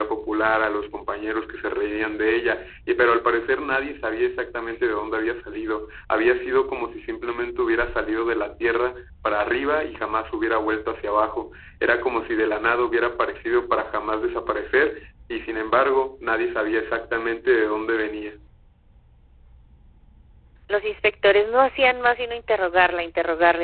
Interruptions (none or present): none